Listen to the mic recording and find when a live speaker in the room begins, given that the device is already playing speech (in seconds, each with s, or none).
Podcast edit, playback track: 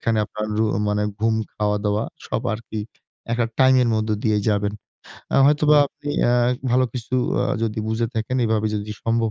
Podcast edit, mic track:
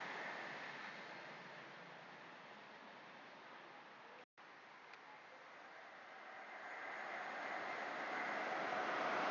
none